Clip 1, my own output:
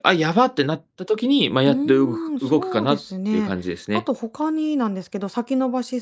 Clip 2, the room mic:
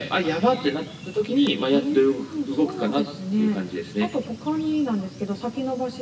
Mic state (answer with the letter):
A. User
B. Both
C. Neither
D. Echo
D